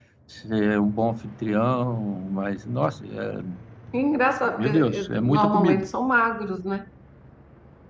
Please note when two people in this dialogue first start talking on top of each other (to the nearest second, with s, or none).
5 s